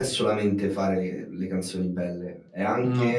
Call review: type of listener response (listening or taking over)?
listening